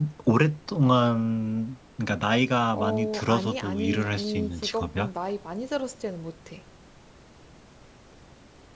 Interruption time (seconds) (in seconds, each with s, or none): 2.7 s